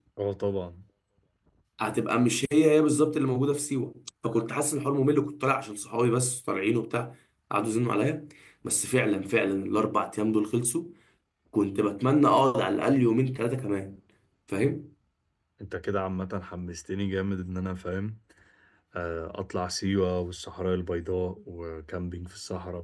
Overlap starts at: none

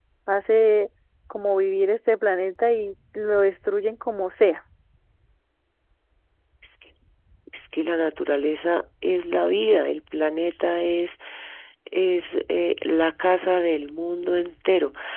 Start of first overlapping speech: none

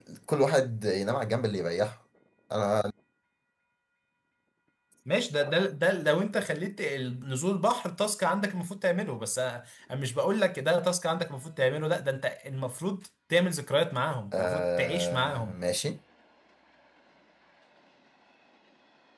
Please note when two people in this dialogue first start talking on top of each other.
14 s

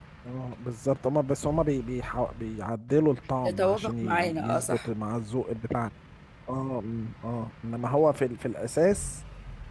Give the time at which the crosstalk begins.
3 s

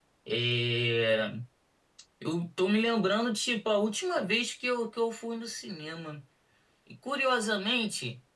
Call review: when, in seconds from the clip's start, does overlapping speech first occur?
none

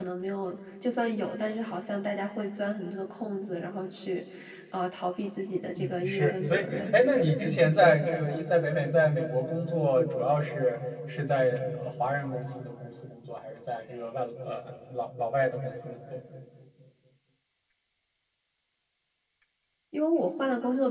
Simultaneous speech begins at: 6 s

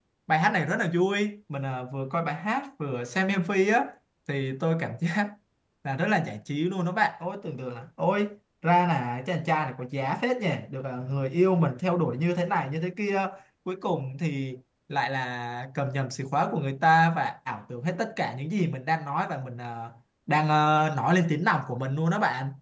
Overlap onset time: none

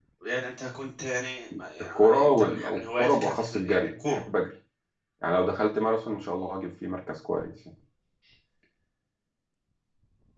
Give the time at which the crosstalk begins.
2 s

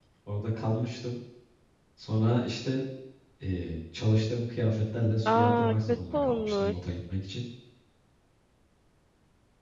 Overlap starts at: 5 s

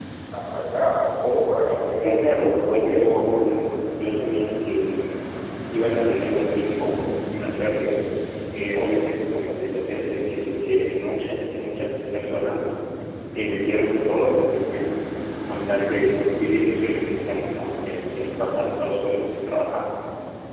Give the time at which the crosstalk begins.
2 s

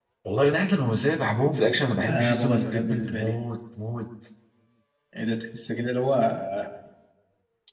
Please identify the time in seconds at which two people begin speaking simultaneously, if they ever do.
2 s

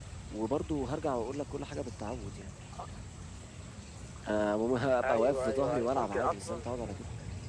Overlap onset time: 5 s

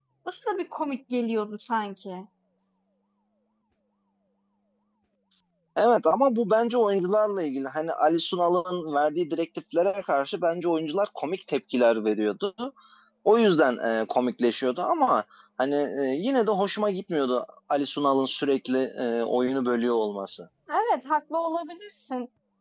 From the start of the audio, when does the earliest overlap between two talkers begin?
none

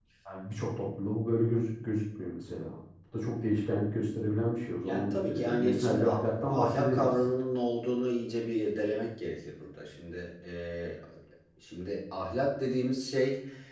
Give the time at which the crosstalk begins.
5 s

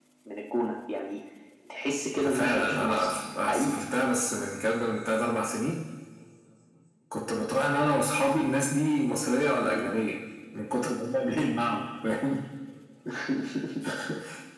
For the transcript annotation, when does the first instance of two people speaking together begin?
2 s

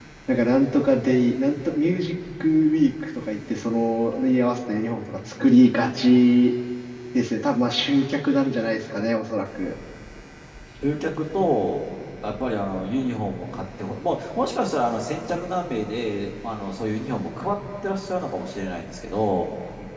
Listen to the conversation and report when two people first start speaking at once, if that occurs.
none

